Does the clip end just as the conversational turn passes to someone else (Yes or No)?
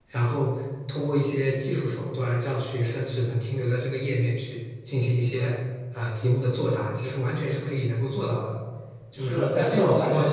Yes